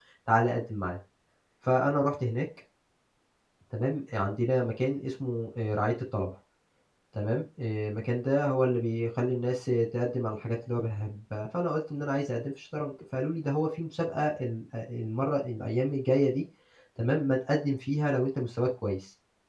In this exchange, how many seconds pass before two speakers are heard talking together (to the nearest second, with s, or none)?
none